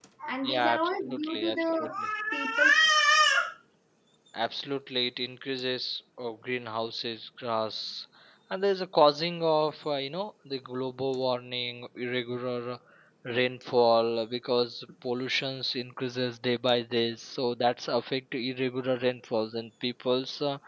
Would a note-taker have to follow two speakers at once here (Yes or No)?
Yes